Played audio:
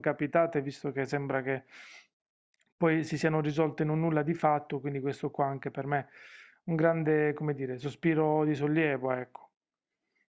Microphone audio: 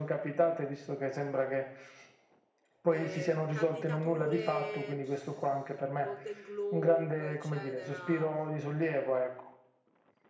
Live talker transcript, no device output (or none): Eh, Mm. candidature, pff, Golden Globe, eccetera.